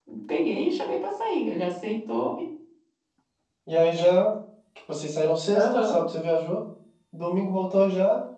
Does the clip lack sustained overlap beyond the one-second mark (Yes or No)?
Yes